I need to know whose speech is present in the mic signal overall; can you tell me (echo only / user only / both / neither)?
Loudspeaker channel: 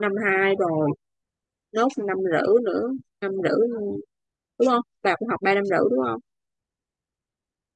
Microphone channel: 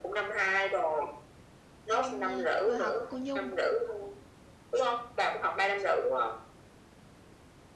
both